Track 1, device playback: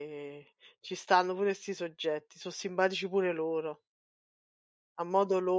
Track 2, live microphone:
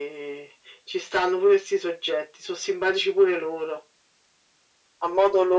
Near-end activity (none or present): none